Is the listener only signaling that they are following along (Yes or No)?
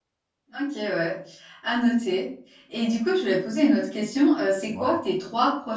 Yes